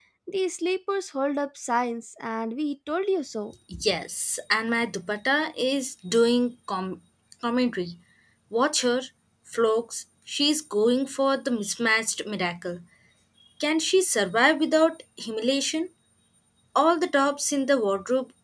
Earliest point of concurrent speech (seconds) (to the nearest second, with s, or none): none